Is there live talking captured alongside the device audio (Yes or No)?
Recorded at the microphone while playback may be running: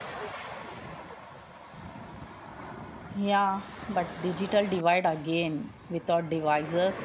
Yes